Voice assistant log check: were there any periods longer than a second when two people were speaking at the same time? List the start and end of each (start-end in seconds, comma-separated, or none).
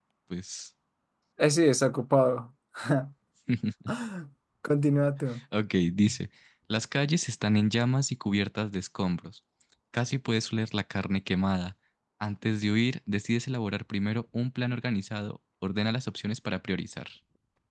none